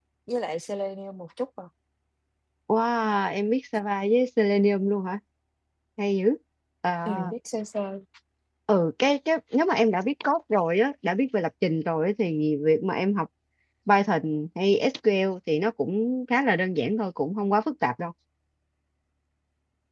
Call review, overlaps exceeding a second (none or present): none